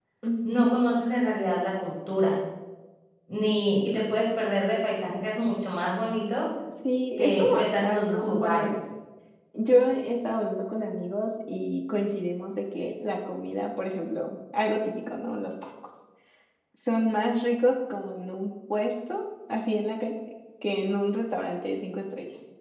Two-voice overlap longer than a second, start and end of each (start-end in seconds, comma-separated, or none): 7.2-8.7